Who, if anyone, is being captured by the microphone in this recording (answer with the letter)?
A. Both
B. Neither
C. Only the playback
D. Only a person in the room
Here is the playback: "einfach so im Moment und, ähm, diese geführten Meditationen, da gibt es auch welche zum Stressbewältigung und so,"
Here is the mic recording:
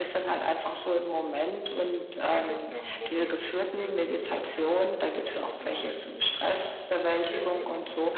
A